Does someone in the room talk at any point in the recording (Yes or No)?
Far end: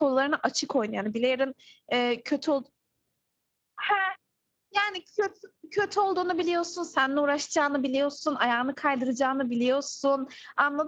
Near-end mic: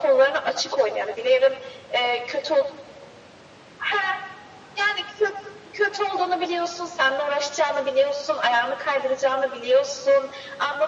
No